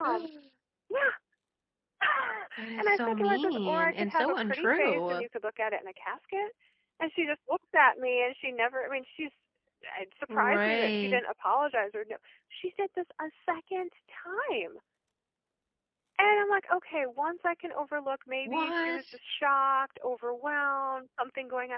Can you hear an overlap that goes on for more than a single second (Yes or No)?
Yes